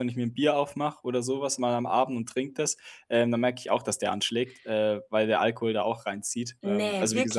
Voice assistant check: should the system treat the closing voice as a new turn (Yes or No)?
Yes